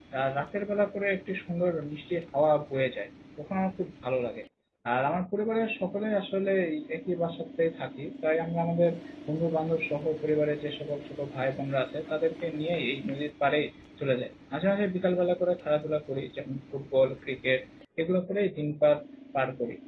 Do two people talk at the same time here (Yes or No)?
No